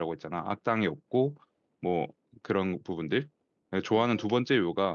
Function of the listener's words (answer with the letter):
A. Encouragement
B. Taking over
A